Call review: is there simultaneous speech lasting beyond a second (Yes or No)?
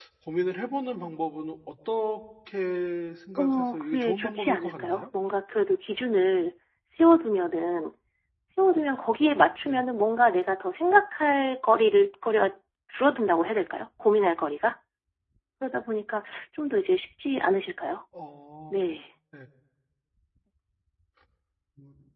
Yes